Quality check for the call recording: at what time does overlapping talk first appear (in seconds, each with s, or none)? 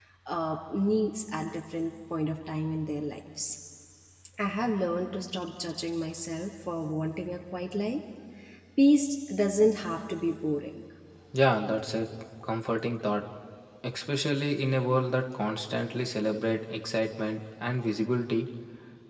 none